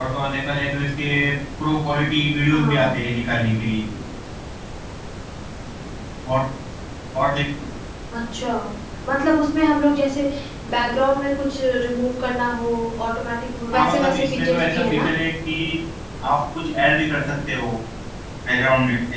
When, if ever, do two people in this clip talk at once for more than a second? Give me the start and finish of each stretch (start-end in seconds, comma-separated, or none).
13.7-15.1